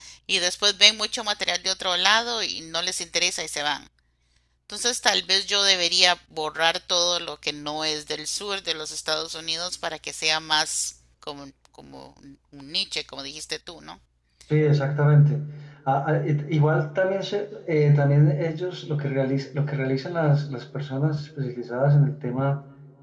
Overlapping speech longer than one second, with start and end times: none

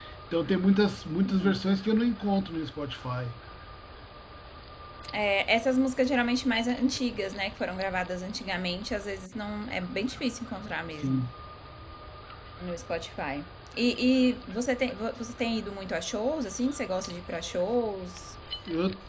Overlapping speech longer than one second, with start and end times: none

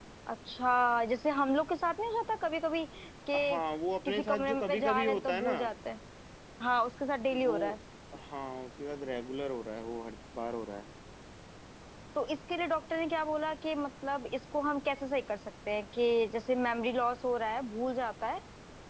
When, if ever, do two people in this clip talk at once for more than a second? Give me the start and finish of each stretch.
4.0-5.5

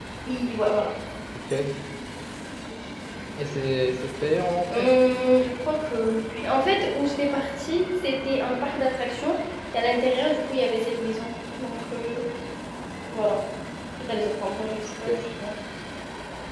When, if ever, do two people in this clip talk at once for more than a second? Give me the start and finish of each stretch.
none

